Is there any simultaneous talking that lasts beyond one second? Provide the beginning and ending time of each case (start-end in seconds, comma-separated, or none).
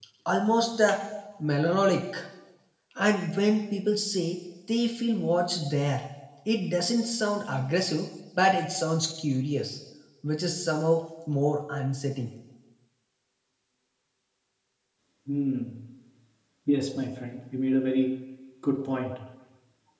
none